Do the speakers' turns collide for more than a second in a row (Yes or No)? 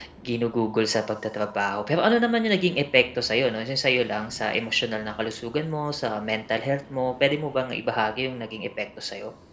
No